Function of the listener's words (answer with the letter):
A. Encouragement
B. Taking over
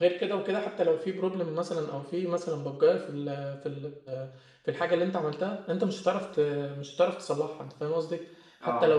A